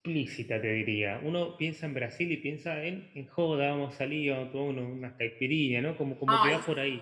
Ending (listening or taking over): taking over